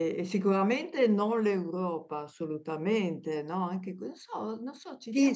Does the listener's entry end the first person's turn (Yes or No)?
Yes